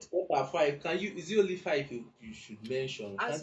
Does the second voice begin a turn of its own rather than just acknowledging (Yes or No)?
Yes